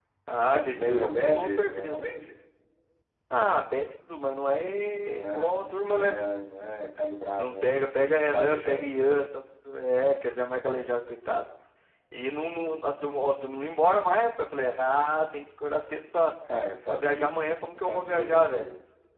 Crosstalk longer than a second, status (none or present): present